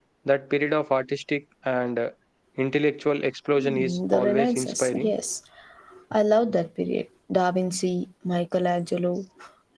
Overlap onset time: 3.6 s

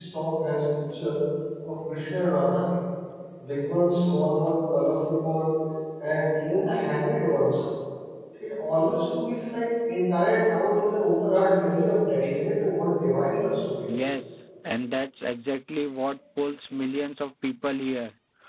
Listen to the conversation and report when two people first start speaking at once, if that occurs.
none

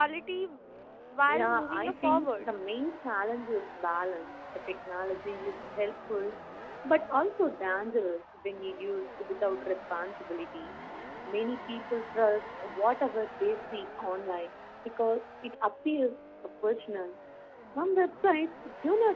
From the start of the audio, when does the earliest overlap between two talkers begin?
1.3 s

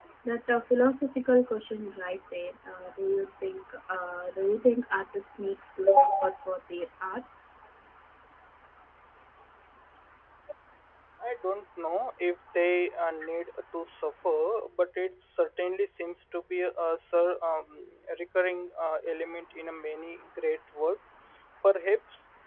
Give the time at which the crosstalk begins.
none

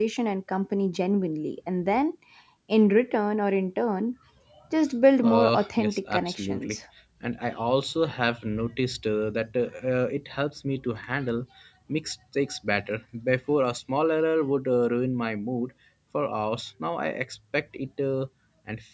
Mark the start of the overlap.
5.2 s

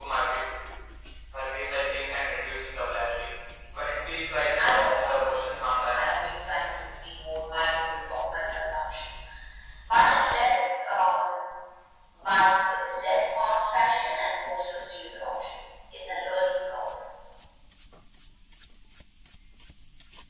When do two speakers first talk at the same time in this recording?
4.6 s

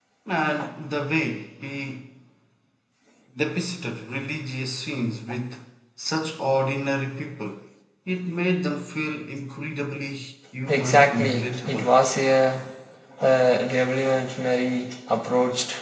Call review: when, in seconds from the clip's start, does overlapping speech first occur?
10.7 s

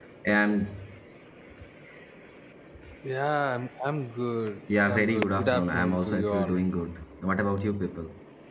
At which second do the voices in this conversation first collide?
4.7 s

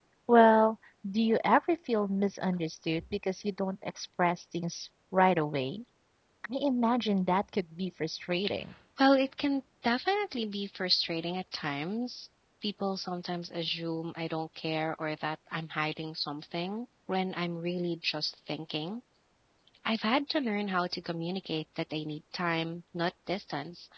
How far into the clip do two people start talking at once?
none

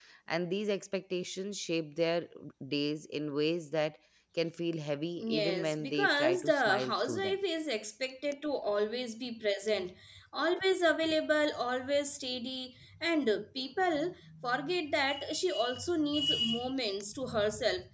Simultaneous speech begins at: 5.2 s

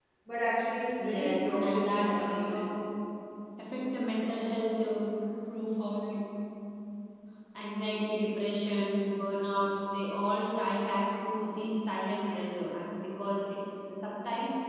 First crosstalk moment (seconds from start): 1.0 s

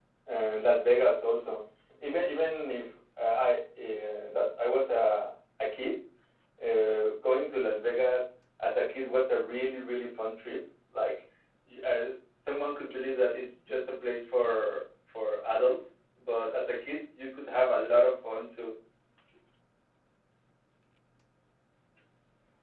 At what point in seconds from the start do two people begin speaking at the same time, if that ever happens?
none

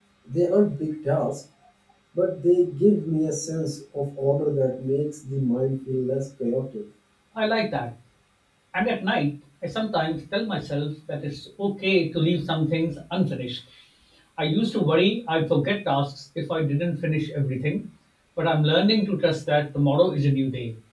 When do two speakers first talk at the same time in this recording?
none

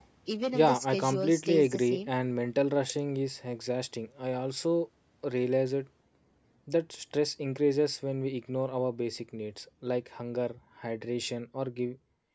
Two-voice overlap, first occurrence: 0.5 s

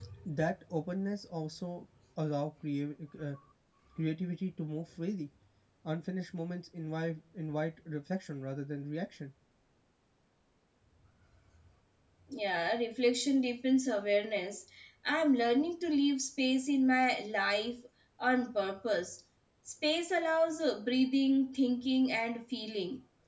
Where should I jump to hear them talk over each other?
none

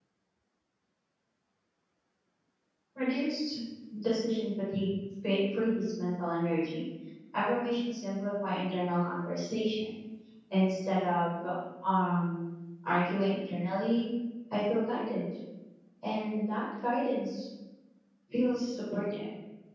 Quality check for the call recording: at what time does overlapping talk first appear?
none

